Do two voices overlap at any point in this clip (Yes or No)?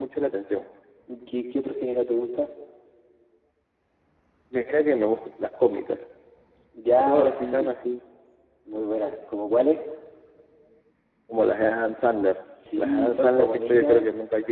Yes